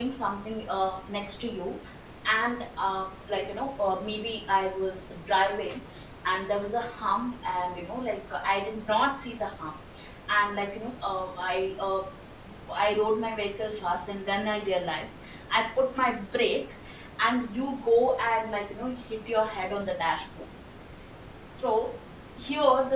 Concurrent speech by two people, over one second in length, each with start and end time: none

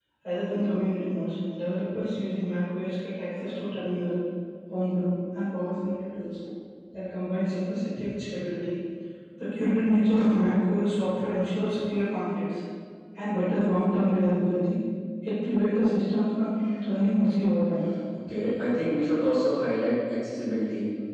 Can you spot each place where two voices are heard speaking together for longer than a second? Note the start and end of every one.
none

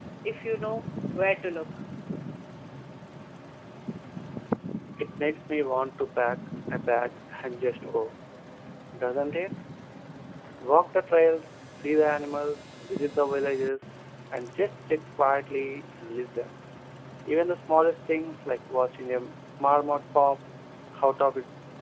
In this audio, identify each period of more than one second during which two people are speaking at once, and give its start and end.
none

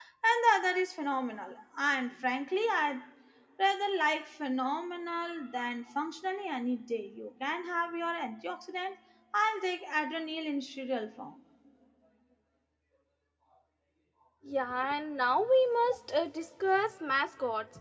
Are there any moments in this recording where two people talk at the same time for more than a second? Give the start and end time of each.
none

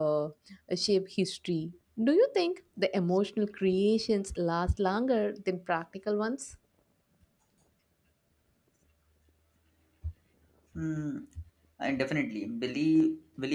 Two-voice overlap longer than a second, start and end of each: none

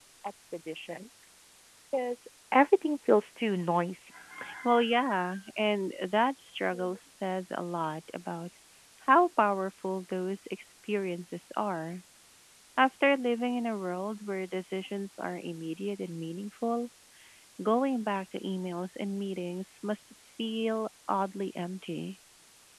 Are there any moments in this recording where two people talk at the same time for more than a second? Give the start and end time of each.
none

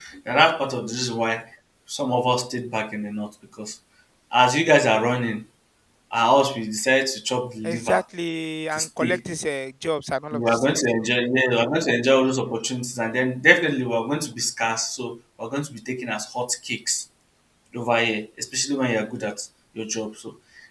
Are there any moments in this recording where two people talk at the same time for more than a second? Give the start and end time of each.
none

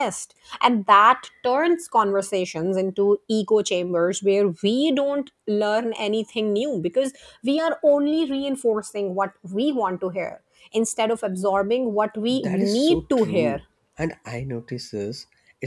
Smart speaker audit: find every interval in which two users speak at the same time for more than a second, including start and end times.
12.3-13.6

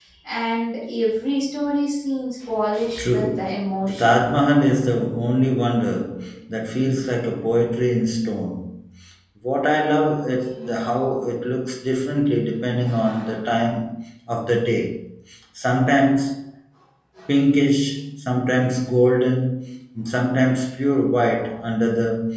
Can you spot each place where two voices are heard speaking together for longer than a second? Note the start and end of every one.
3.0-4.2

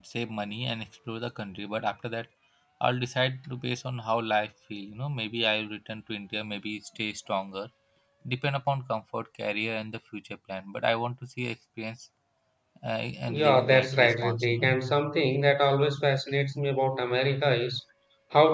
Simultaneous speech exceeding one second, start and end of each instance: 13.4-14.8

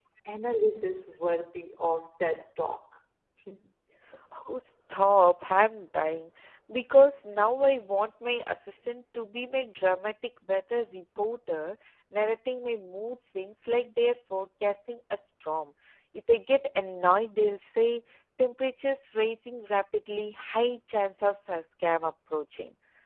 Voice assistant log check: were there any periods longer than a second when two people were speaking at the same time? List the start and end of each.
none

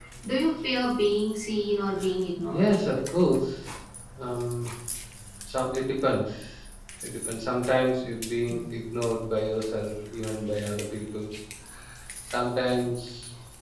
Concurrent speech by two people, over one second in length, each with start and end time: none

